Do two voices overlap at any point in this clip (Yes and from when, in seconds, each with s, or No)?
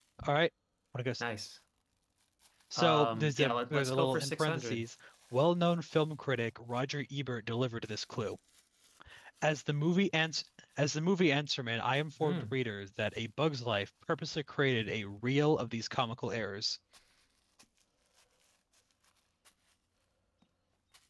Yes, from 2.8 s